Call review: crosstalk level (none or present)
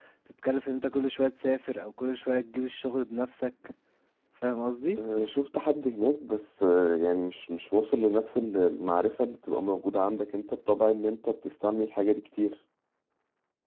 none